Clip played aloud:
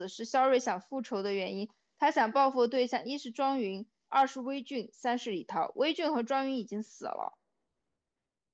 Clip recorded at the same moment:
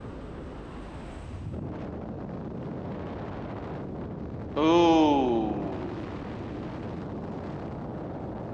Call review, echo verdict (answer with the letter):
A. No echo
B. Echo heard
A